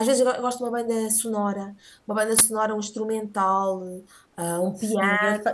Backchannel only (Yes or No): No